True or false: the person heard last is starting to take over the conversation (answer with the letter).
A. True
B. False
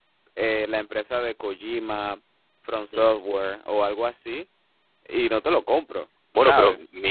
A